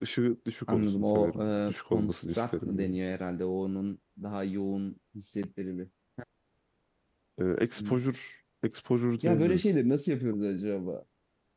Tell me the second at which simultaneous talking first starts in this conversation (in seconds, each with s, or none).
0.7 s